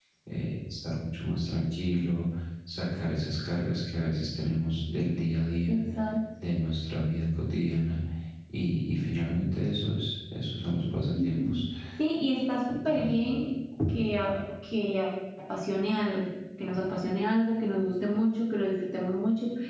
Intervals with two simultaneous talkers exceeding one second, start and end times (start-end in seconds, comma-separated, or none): none